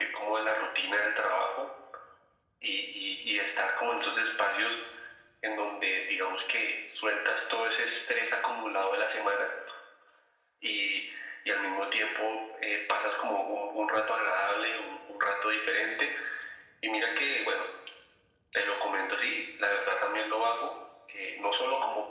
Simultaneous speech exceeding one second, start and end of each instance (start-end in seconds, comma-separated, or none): none